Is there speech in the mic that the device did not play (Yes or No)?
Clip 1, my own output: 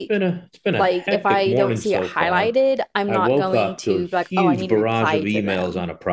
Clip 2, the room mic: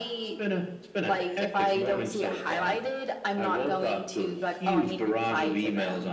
No